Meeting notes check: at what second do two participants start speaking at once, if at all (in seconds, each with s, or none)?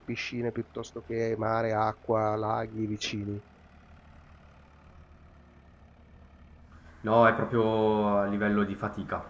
none